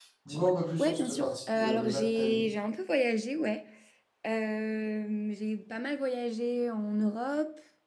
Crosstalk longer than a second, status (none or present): present